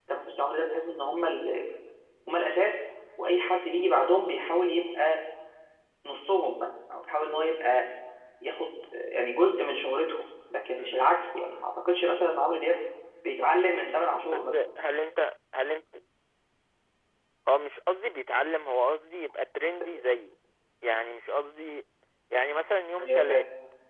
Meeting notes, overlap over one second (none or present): none